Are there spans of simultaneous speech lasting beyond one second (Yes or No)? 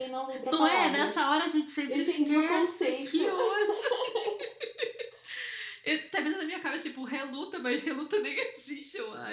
Yes